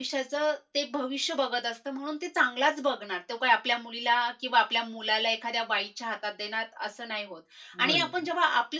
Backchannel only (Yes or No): Yes